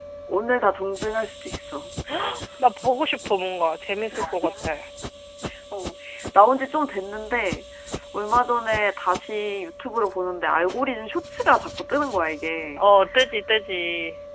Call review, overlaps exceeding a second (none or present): none